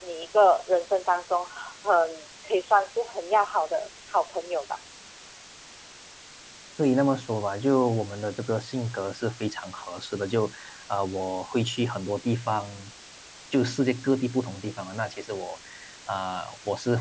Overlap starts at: none

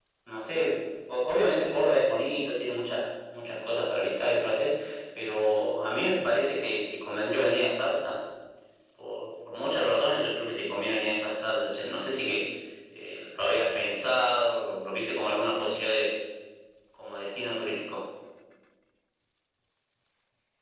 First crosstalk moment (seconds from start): none

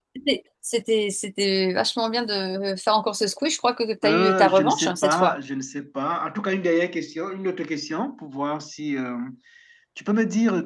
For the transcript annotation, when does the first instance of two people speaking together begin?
4.0 s

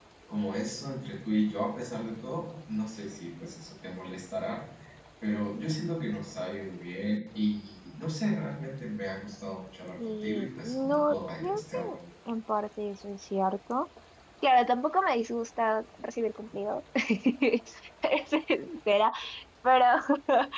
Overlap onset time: 10.2 s

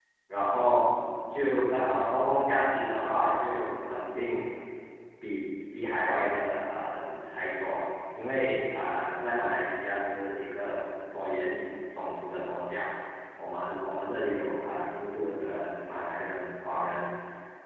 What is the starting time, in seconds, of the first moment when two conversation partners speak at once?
none

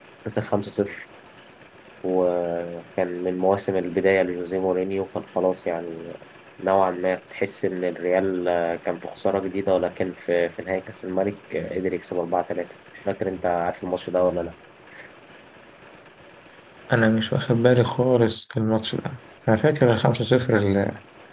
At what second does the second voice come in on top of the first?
none

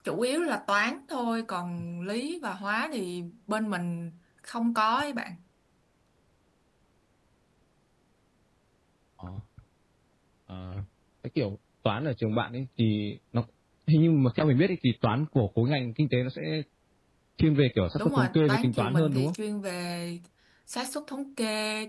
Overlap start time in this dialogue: 18.0 s

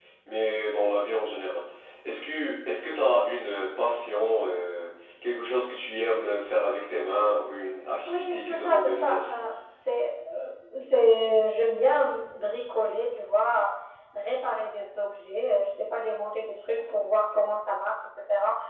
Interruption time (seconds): 8.1 s

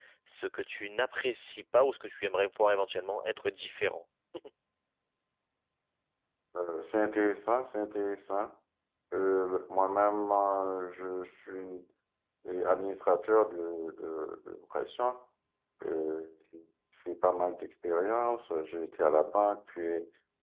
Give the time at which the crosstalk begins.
none

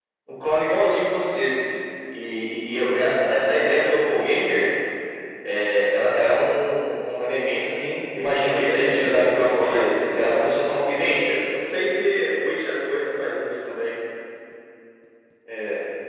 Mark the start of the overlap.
8.5 s

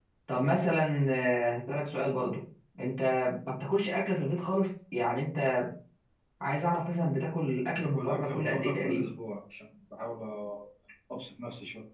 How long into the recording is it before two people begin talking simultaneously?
7.7 s

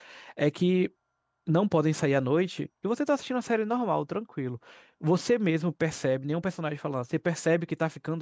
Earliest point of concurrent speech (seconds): none

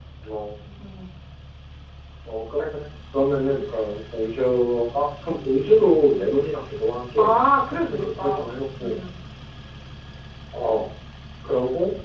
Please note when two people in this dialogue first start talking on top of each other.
7.2 s

